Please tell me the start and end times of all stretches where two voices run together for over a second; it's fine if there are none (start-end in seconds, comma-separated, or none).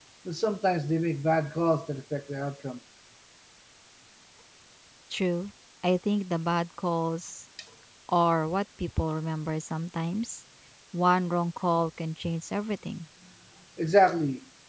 none